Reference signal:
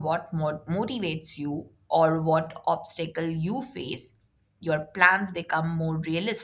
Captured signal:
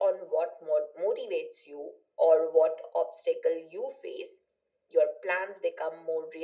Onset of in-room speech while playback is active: none

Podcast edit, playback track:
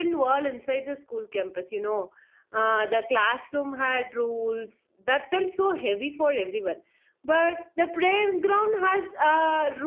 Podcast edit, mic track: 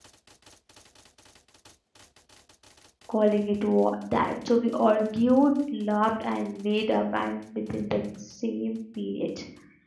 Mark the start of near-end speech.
3 s

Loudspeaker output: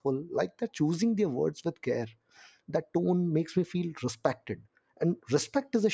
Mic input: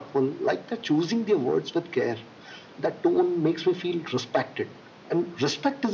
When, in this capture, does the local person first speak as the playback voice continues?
none

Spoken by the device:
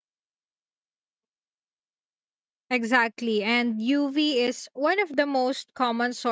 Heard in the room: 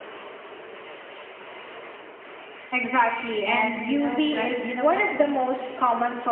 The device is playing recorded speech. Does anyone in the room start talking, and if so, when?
3 s

